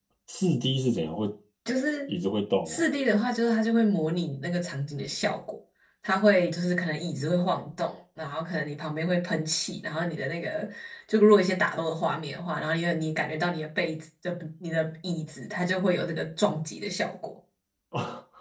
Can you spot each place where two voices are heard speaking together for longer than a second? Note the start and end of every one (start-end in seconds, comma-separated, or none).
none